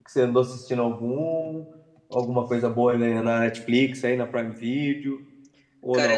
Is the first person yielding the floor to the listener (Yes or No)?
Yes